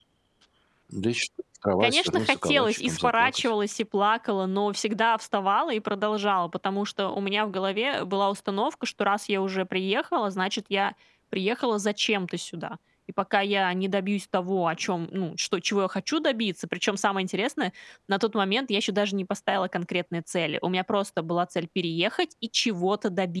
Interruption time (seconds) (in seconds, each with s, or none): 1.8 s